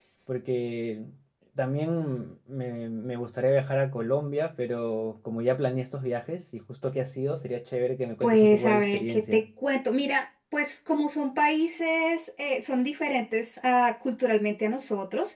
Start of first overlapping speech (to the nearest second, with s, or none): 8 s